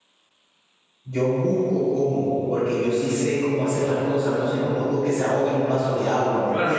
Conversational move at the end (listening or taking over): taking over